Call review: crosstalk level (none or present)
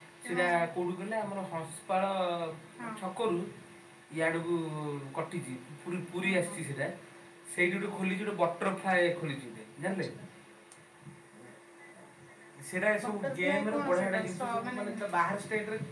present